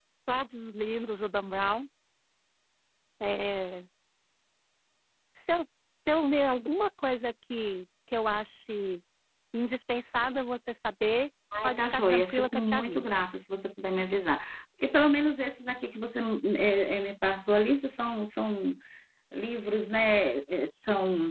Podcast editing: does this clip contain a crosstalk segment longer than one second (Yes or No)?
Yes